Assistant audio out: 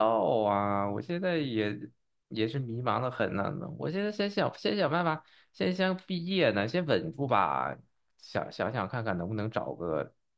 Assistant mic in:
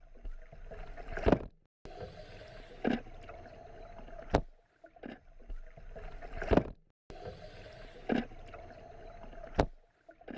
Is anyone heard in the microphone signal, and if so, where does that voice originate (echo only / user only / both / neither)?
neither